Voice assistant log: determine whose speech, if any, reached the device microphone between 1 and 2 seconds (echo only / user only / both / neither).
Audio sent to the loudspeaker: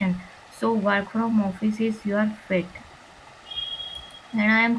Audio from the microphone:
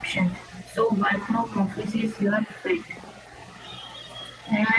echo only